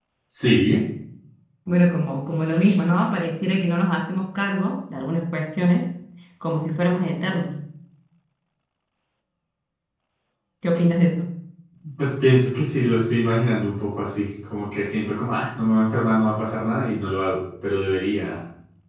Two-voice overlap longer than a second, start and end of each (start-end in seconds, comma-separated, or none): none